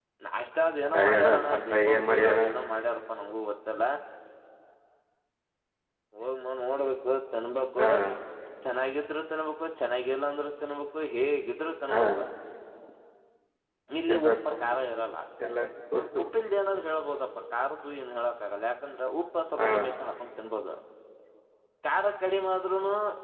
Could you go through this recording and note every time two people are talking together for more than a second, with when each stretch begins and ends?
0.9-2.5

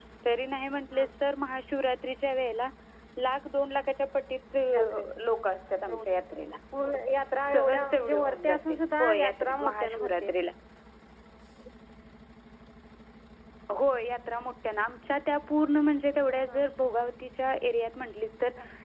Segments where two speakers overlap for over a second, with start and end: 7.5-10.1

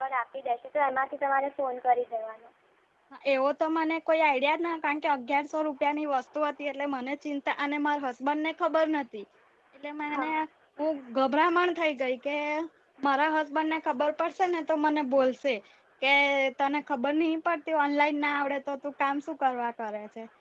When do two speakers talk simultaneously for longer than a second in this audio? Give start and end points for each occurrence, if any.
none

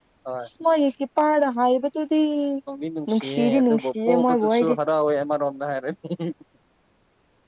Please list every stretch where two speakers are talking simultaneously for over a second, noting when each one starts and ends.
3.1-4.8

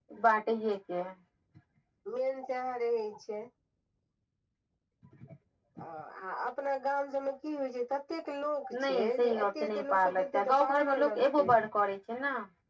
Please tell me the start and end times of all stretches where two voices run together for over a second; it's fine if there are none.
8.8-11.5

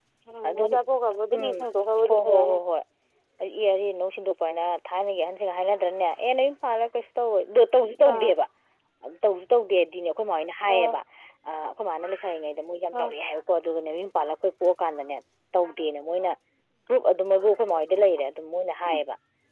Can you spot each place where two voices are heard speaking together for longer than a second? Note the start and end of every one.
none

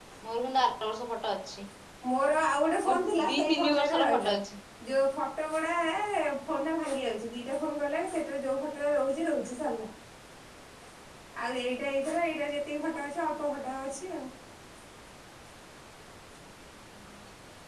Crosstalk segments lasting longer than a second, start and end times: 2.9-4.3

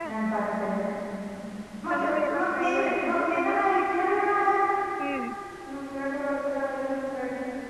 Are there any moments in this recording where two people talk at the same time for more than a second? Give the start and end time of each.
2.4-3.9

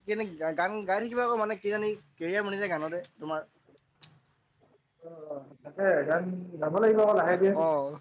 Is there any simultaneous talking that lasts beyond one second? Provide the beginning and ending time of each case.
none

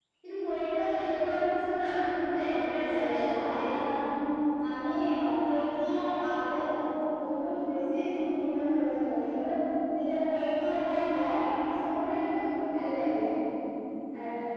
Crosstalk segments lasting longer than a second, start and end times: 2.4-3.7

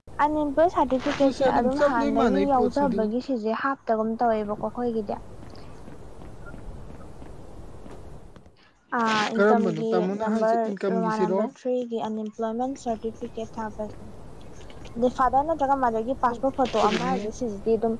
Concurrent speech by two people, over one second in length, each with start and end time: 1.2-3.0, 9.3-11.4

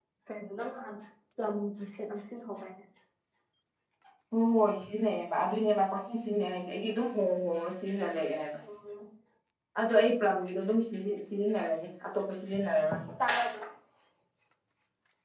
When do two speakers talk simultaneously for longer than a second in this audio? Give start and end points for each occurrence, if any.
none

